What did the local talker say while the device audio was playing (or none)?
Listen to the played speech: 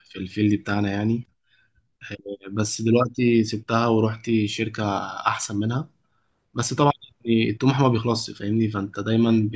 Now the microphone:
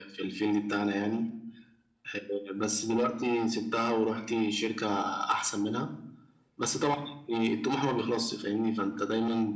none